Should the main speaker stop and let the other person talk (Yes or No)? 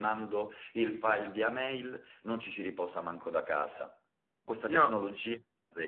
No